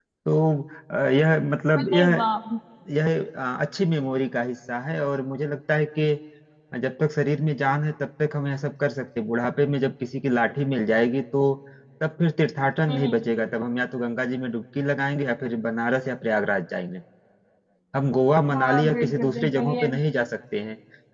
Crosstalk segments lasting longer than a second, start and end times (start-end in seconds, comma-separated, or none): 18.5-19.9